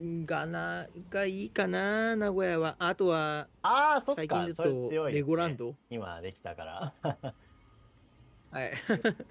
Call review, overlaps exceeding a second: present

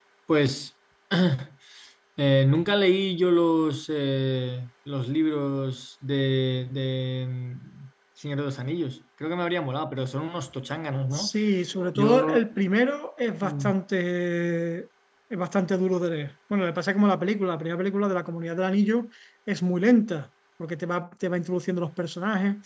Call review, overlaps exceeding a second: none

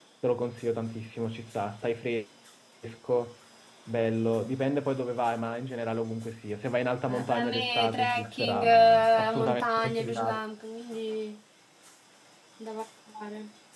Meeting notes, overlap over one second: present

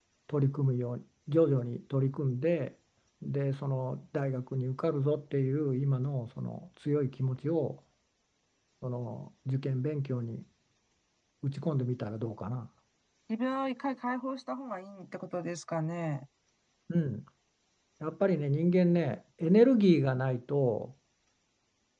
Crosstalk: none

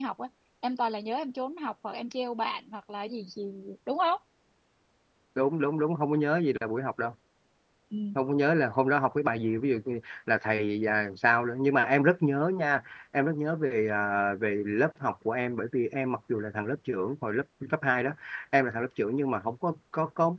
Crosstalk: none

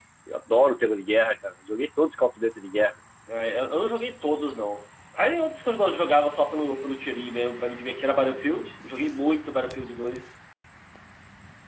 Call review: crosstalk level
none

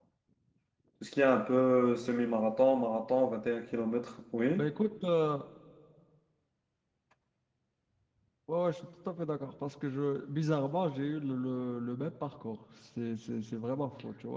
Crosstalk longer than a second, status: none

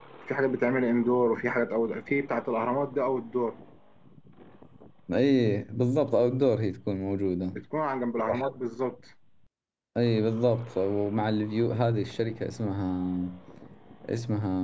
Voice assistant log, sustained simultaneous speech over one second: none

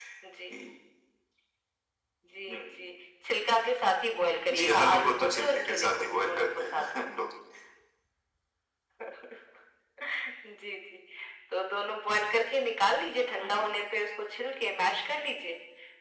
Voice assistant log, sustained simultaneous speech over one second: present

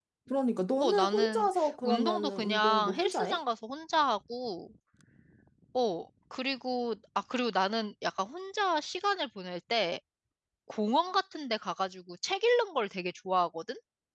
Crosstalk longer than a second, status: present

